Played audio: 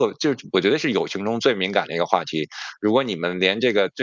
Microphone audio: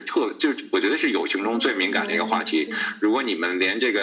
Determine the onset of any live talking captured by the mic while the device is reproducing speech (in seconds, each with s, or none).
1.4 s